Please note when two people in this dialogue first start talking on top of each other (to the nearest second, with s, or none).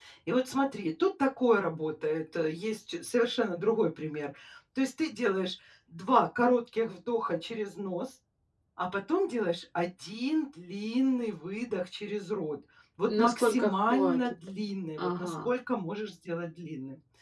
13 s